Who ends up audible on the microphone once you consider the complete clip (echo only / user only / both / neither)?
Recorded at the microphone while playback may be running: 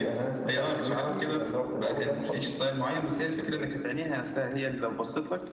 echo only